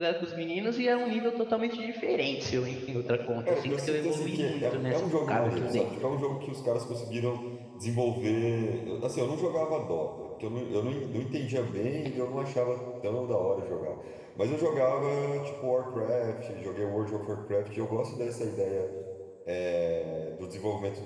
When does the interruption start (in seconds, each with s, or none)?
3.5 s